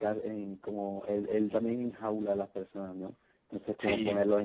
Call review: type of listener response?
listening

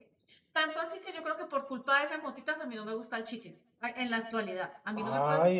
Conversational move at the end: taking over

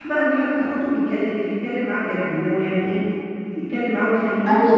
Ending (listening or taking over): taking over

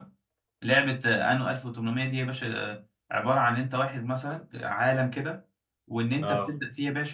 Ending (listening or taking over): listening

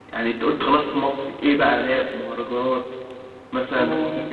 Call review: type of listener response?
taking over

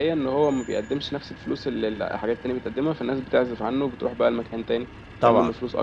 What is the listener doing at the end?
taking over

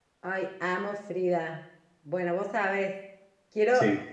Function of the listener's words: listening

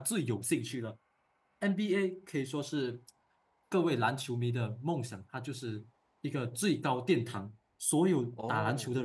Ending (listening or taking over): listening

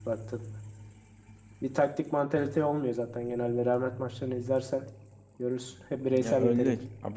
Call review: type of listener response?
taking over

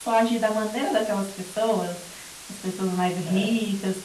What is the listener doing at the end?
listening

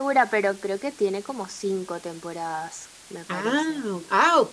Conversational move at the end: taking over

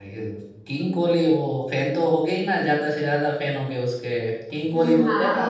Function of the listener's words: taking over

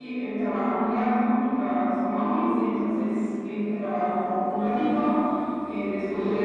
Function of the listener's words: listening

